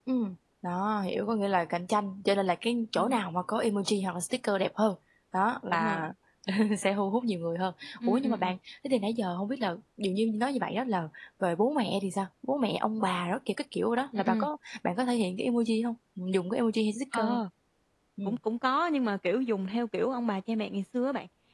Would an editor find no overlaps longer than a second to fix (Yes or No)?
Yes